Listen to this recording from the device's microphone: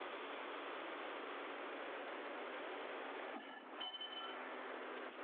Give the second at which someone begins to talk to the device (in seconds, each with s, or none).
none